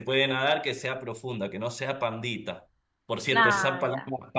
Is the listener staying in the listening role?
Yes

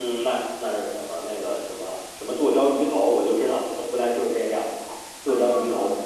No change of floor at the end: No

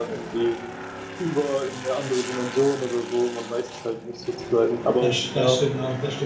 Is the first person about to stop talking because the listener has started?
Yes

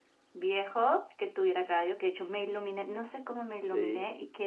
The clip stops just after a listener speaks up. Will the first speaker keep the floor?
Yes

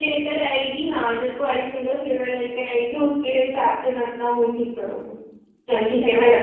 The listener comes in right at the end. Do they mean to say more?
Yes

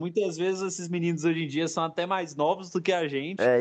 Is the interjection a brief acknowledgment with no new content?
No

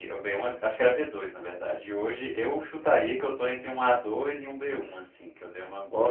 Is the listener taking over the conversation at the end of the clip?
Yes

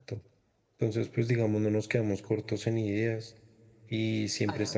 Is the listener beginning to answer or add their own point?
No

